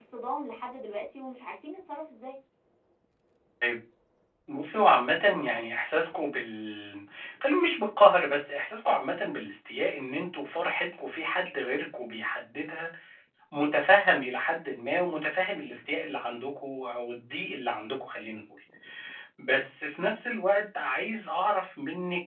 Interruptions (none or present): none